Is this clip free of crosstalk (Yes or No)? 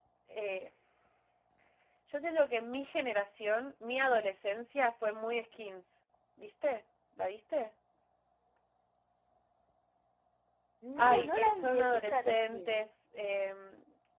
No